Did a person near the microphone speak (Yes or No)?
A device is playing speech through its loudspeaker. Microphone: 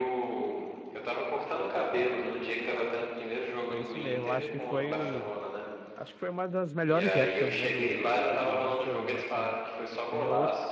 Yes